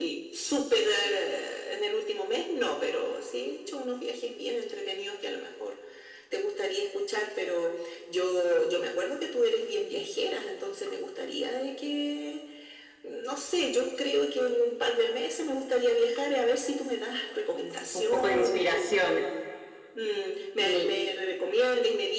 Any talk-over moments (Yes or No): Yes